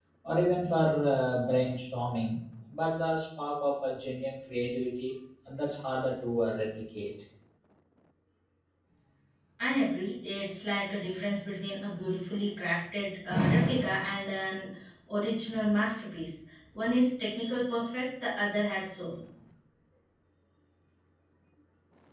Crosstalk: none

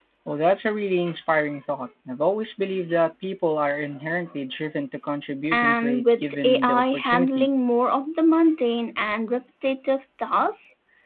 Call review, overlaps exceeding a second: present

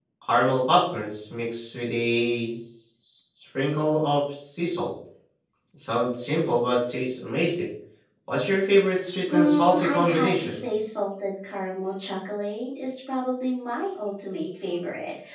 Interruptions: present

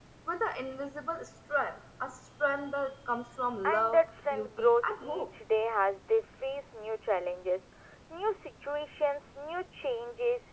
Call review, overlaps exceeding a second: present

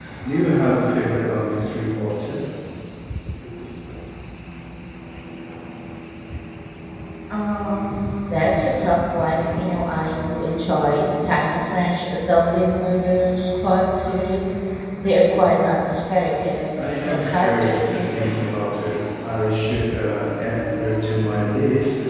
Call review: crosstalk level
present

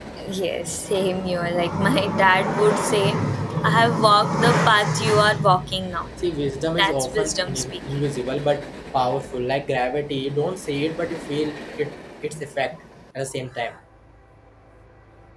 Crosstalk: present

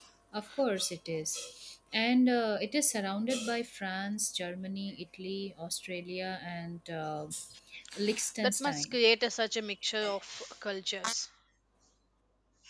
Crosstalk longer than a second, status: none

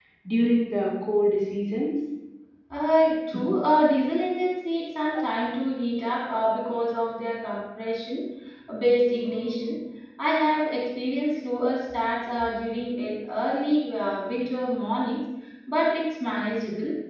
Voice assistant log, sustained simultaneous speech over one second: none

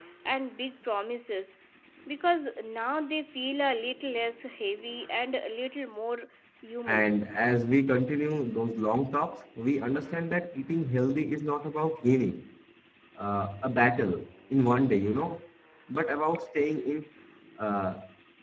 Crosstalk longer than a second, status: none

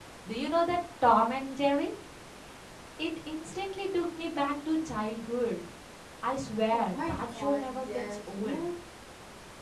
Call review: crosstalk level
present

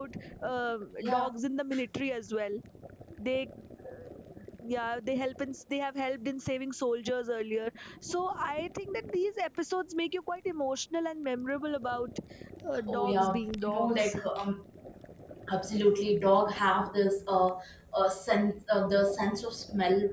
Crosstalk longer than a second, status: present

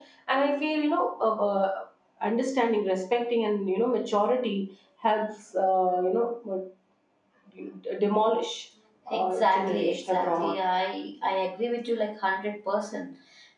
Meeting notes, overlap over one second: present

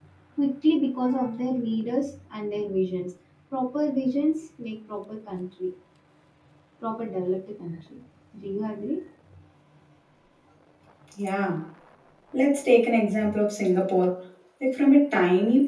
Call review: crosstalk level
none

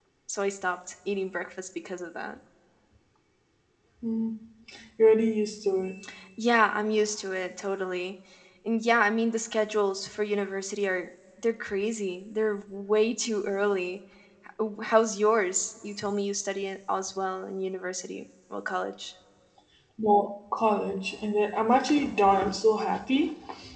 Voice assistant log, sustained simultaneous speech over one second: none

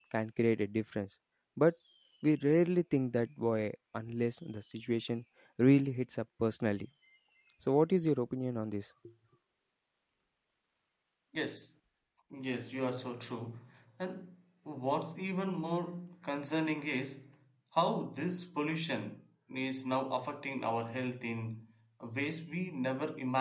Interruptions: none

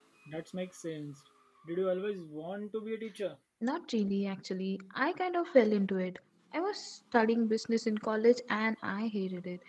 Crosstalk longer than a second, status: none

